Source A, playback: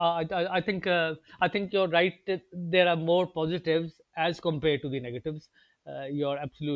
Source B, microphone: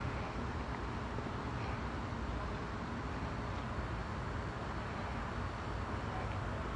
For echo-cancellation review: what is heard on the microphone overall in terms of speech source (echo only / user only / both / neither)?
neither